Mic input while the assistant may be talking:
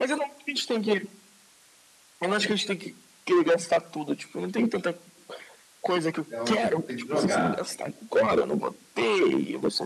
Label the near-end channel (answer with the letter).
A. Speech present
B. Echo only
A